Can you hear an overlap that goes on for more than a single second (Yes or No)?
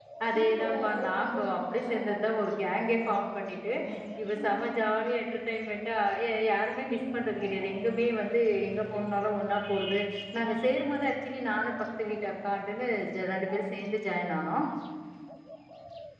Yes